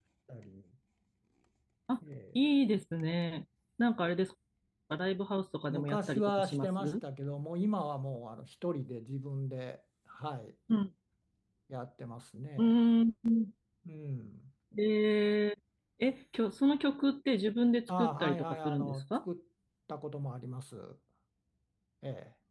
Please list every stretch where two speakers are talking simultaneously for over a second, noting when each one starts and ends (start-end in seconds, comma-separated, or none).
5.7-6.9, 17.9-19.2